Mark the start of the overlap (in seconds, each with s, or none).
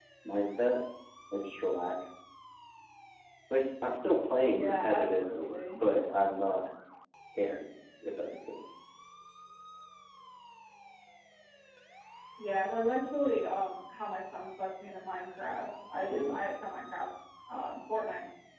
4.5 s